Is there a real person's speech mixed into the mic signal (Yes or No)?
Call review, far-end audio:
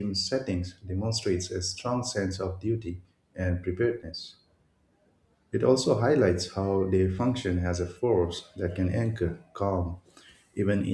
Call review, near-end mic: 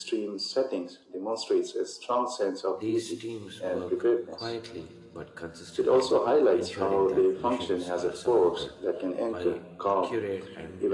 Yes